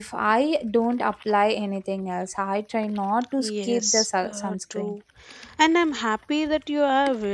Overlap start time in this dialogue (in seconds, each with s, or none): 3.4 s